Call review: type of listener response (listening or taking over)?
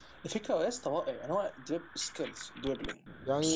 taking over